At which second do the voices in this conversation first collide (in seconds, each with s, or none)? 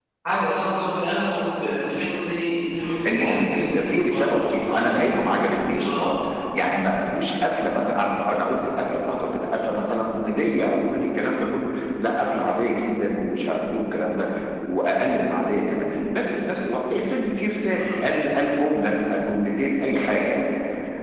3.1 s